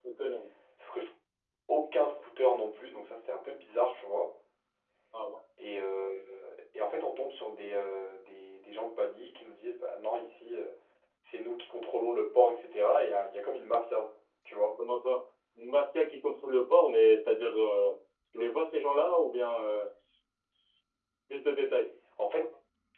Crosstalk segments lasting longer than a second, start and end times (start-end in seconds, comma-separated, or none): none